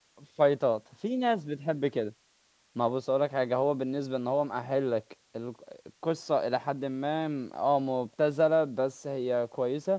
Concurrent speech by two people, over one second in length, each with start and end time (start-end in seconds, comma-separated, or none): none